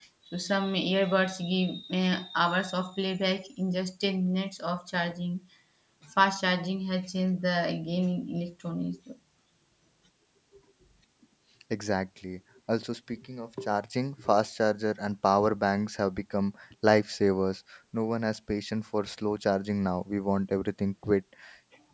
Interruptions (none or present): none